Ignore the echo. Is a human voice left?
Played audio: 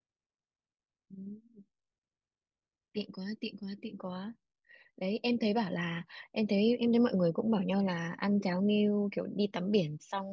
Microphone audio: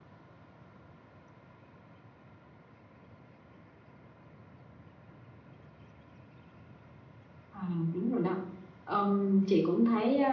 Yes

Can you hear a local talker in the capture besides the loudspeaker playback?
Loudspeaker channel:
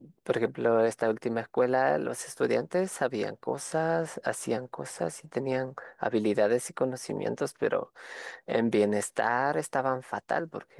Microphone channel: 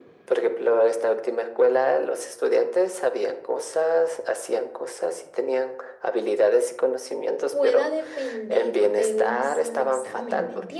Yes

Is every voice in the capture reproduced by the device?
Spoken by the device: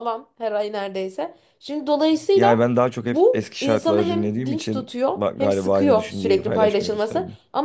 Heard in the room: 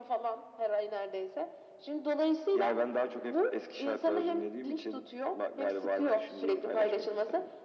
Yes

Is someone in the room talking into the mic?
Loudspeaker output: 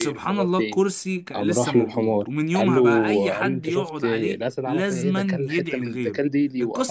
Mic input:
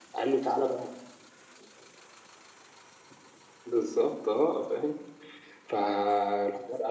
Yes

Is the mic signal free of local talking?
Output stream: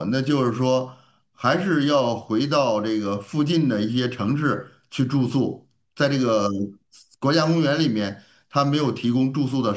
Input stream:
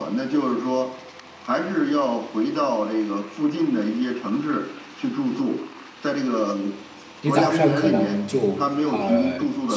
No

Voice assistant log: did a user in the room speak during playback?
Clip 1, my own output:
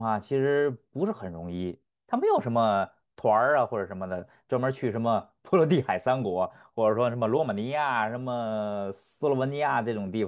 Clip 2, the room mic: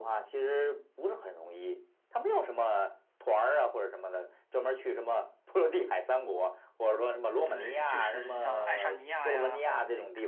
Yes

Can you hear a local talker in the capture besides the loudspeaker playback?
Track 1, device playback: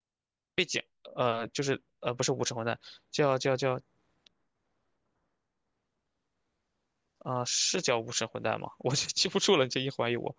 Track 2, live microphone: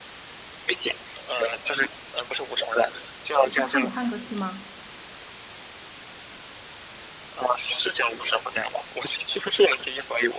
Yes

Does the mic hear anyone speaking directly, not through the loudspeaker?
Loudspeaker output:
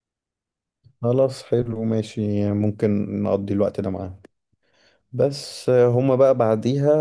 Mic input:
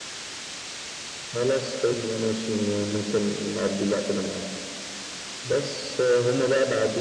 No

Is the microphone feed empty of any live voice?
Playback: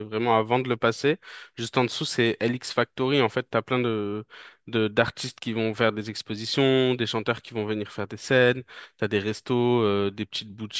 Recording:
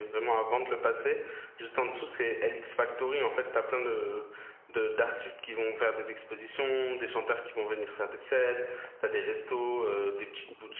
Yes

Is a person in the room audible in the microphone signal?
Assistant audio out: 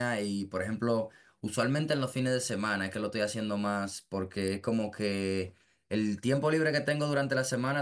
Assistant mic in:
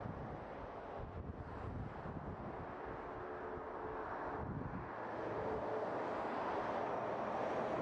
No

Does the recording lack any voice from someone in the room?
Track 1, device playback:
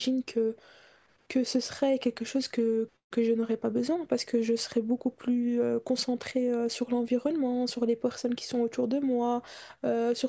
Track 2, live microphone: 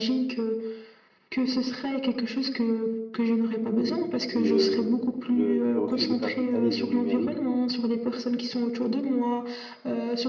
No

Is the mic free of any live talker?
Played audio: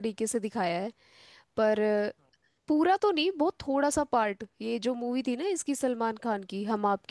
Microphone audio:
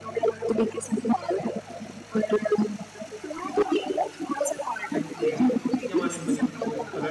No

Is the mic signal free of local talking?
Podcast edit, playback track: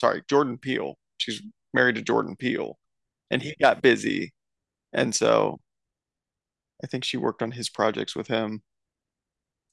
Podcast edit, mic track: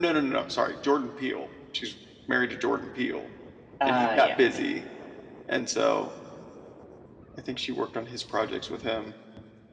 No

